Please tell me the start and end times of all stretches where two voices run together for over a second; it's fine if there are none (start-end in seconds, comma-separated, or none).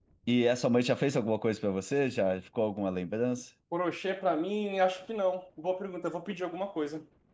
none